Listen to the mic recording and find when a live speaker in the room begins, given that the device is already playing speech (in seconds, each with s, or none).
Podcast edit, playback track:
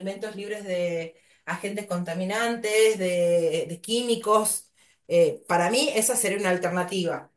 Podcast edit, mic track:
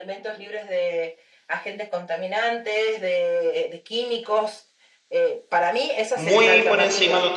6.1 s